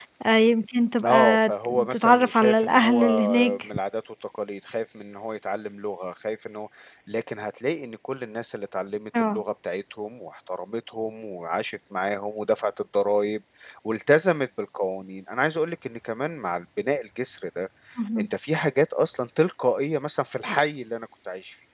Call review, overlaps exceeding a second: present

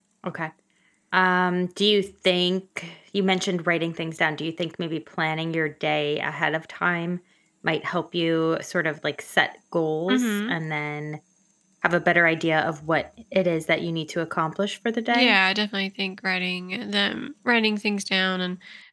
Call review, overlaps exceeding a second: none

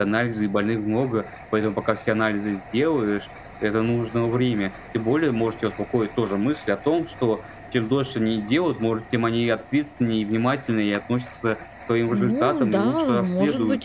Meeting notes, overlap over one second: present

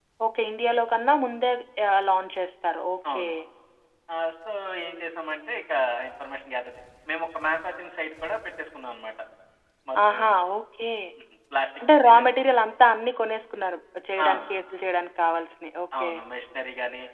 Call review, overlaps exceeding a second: none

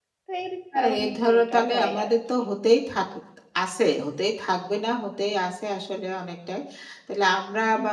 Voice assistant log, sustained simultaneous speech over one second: present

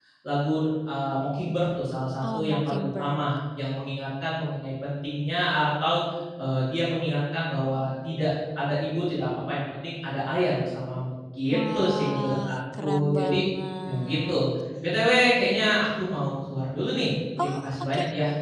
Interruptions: present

